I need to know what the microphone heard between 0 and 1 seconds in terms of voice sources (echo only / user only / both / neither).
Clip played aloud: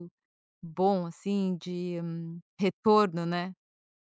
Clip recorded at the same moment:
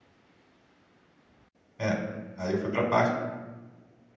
neither